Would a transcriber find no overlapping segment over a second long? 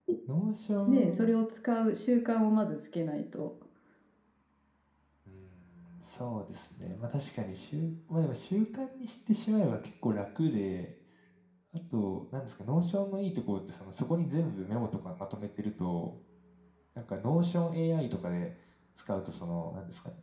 Yes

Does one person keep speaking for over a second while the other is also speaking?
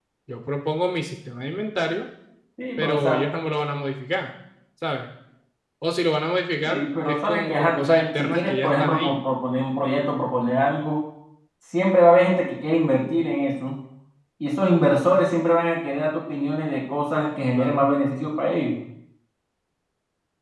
Yes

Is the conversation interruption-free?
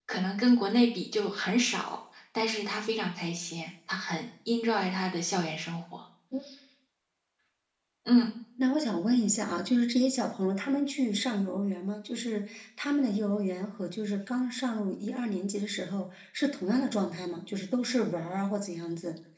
Yes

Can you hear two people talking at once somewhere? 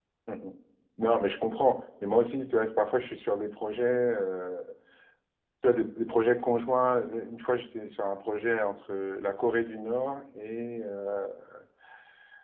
No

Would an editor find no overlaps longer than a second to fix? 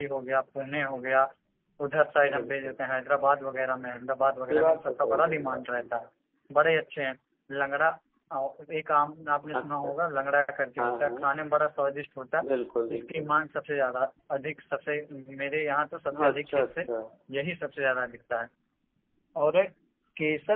No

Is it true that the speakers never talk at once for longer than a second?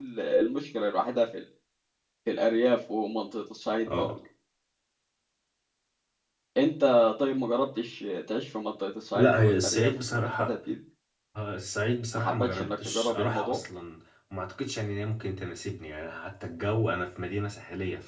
No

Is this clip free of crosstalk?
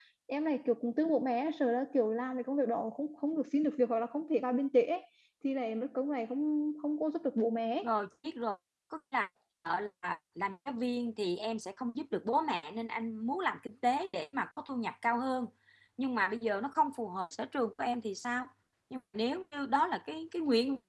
Yes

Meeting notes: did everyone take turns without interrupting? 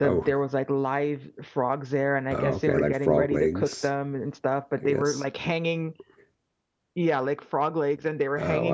No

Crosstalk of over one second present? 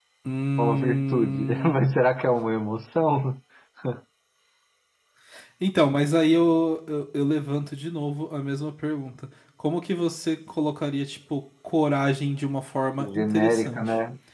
Yes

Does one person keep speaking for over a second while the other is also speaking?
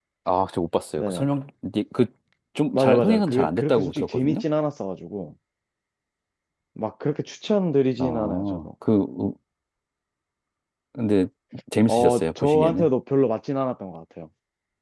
Yes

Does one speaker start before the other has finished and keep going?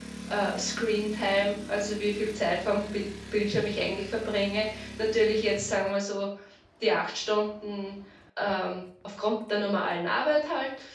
No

